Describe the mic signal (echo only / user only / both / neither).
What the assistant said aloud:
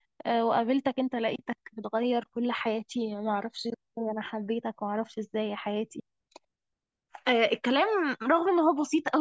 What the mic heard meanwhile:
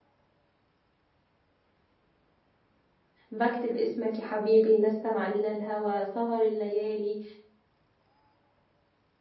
user only